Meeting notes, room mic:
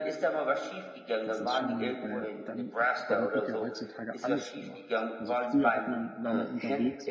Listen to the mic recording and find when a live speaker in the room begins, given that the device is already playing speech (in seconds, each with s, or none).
1.2 s